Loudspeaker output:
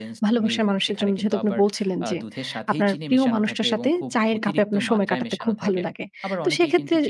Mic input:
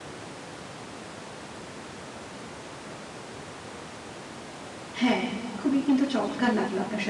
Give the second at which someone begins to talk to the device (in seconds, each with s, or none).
5.0 s